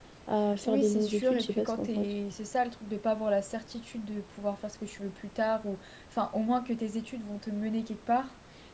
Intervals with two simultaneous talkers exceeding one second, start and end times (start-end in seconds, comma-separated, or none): 0.6-2.1